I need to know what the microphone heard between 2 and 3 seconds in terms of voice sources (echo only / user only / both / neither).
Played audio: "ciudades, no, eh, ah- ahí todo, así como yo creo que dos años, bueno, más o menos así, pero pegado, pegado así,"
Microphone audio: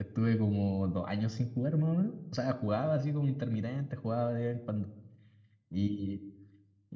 user only